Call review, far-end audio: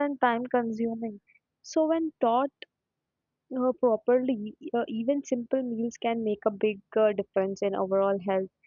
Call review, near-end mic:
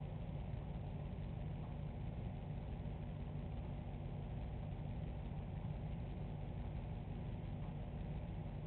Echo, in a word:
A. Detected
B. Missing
B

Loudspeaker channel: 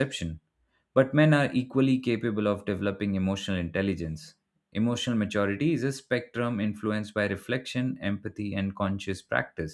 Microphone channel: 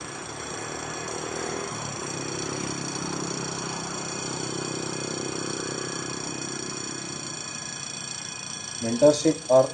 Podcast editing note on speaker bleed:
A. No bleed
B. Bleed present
A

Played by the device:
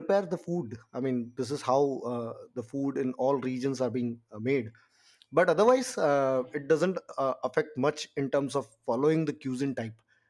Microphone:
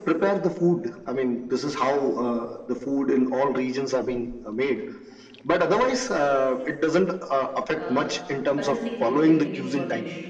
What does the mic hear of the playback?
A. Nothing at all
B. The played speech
B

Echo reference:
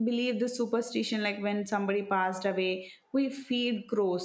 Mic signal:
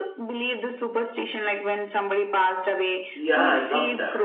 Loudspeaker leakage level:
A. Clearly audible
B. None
A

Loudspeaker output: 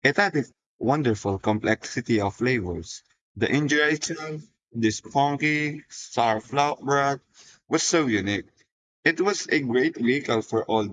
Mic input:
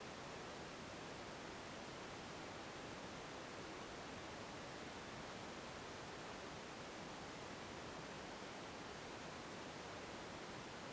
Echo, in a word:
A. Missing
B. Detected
A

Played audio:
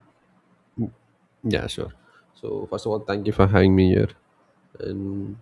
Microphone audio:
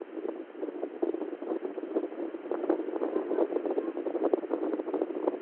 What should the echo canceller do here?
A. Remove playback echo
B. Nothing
B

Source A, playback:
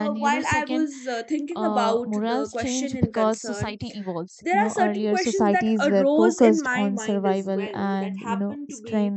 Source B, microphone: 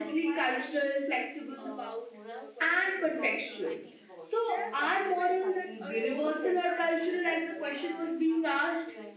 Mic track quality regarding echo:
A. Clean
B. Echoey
B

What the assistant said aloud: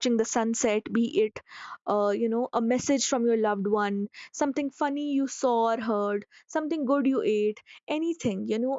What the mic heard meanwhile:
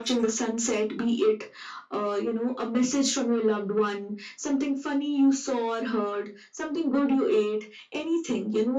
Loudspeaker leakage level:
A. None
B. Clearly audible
B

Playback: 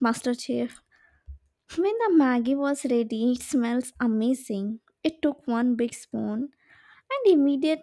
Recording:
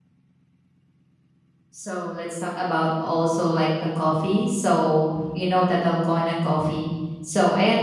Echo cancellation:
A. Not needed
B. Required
A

